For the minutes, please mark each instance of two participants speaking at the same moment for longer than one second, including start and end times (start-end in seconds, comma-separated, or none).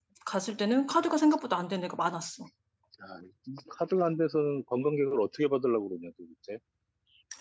none